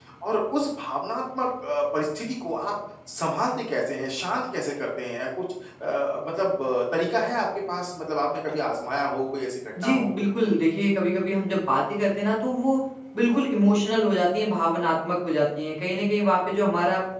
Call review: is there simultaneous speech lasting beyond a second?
No

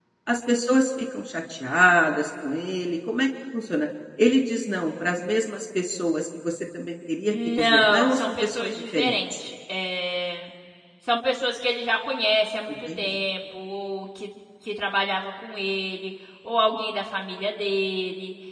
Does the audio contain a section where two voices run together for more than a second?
Yes, from 7.3 s

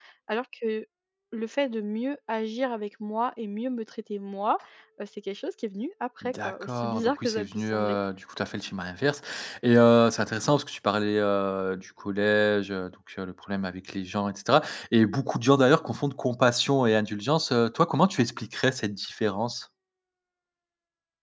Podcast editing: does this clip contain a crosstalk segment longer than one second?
Yes, from 6.2 s

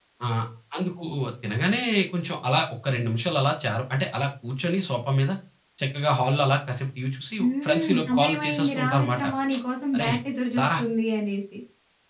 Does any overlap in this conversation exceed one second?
Yes, from 7.4 s

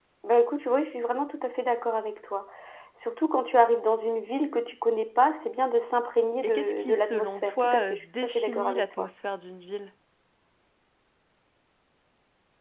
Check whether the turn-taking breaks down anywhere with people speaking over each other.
Yes, from 6.4 s

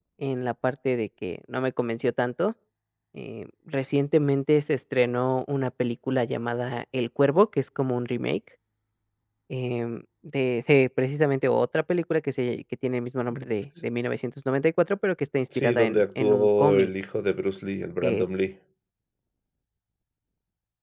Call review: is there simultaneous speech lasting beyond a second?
Yes, from 15.5 s

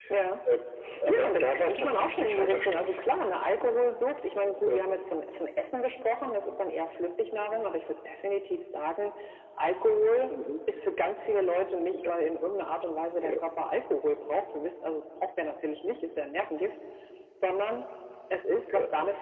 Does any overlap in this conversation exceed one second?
Yes, from 1.1 s

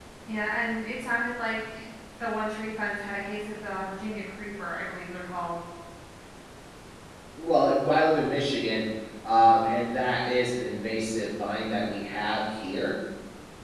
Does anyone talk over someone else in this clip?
No

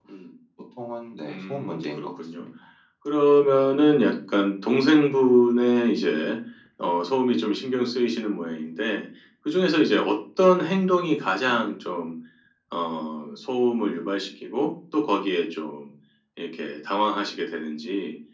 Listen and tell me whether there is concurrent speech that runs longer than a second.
Yes, from 1.2 s

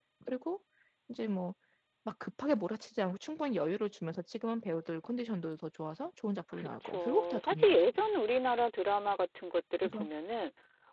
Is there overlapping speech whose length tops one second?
Yes, from 6.5 s

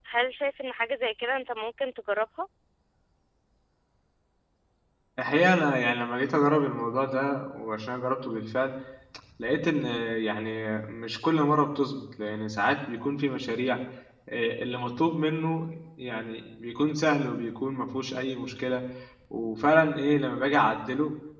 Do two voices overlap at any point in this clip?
No

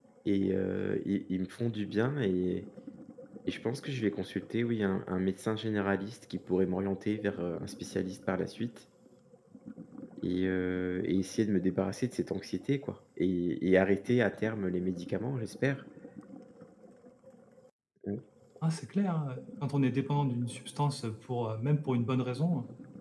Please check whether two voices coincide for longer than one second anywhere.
No

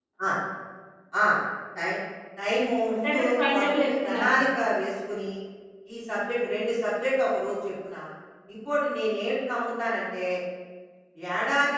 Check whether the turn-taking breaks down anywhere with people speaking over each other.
Yes, from 2.9 s

